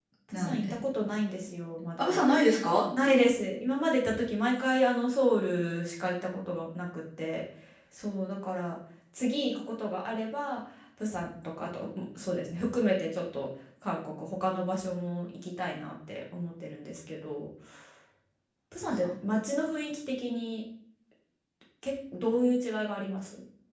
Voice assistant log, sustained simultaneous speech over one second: none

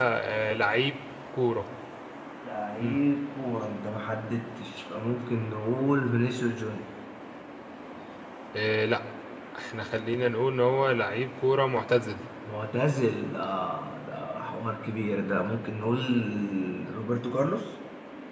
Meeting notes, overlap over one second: none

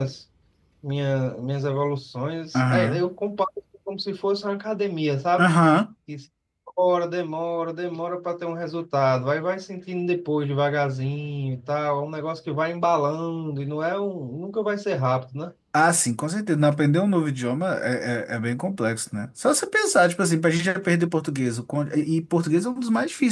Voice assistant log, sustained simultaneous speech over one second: none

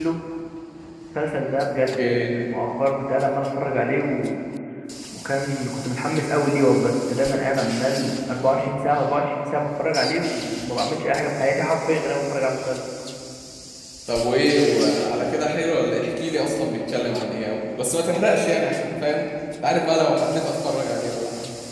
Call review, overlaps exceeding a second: none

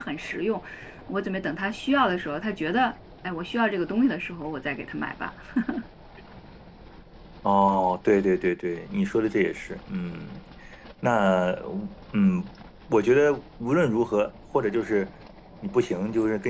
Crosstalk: none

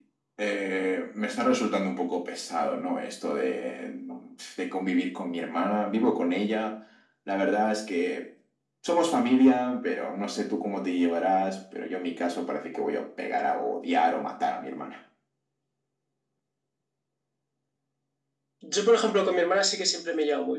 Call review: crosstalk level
none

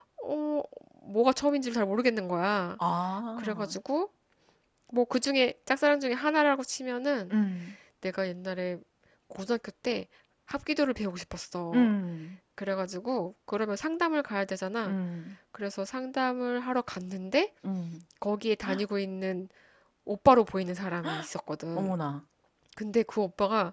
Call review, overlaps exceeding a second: none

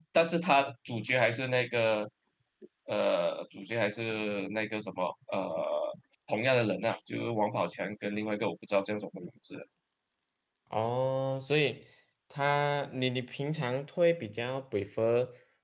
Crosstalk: none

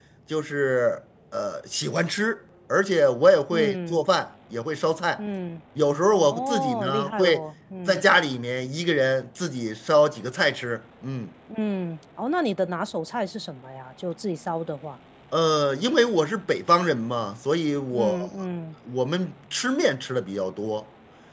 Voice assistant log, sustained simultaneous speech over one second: present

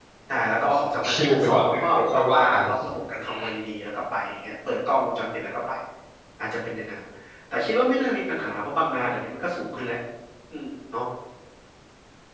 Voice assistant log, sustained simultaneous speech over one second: present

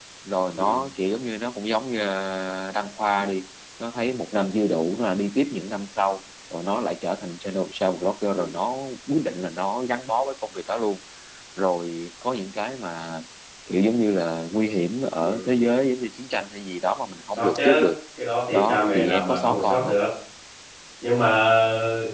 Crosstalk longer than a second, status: present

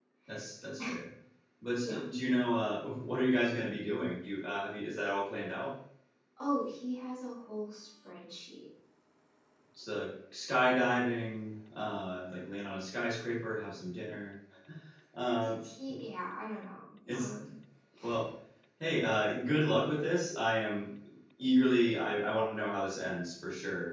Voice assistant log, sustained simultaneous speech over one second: none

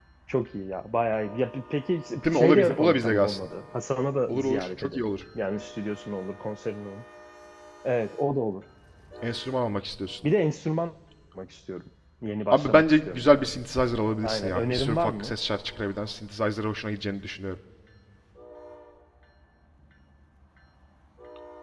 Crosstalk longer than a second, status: present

